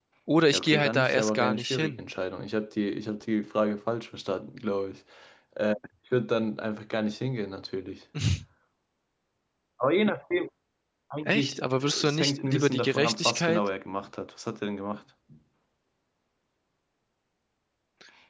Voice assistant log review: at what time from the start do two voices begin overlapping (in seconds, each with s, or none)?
0.5 s